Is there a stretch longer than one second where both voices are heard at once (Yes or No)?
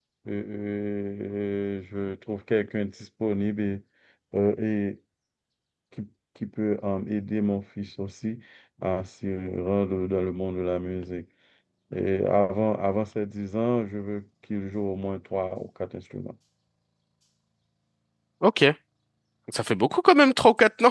No